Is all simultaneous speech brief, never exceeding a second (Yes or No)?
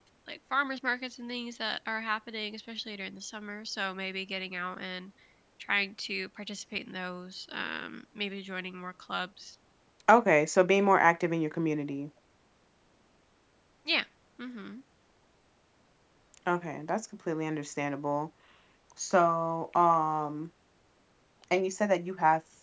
Yes